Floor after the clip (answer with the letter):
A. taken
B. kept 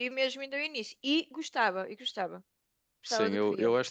A